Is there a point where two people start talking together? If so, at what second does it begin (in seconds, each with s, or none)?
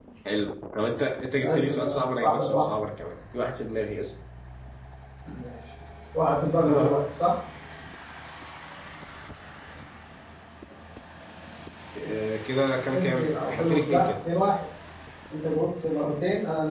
1.4 s